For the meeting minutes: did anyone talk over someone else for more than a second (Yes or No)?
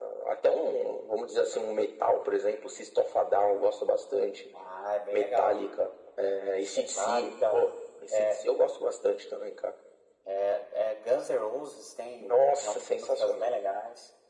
Yes